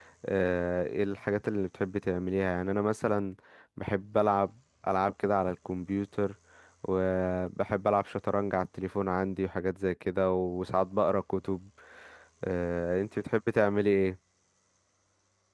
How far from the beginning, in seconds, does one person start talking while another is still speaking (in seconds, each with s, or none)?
none